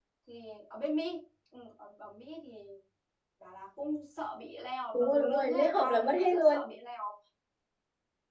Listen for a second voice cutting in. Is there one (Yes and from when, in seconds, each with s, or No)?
Yes, from 4.9 s